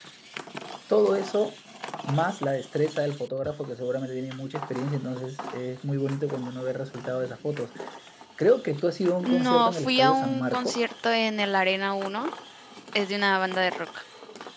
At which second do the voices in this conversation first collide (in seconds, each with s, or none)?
9.2 s